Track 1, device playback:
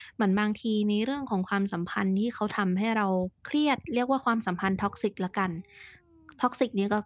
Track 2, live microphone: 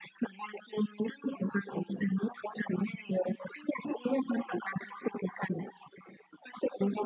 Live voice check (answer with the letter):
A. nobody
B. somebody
A